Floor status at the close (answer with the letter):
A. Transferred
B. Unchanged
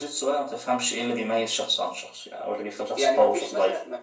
A